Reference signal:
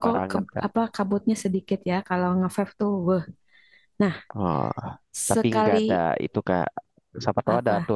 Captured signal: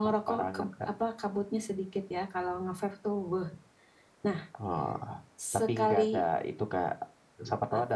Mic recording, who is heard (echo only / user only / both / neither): echo only